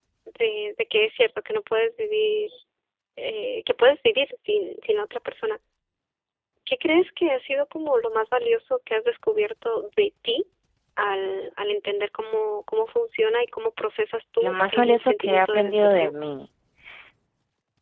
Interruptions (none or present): present